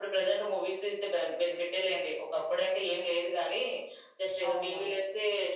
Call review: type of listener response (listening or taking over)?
listening